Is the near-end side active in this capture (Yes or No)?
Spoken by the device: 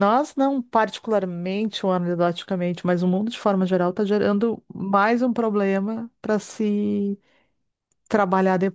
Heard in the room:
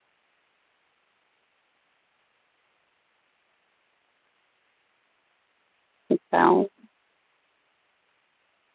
Yes